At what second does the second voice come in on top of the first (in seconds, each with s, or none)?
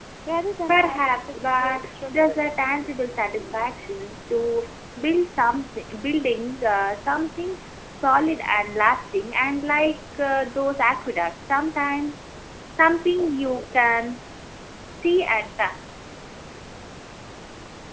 0.7 s